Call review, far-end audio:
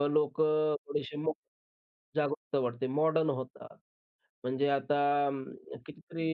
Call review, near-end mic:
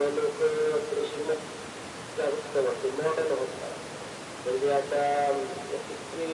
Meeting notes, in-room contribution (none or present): none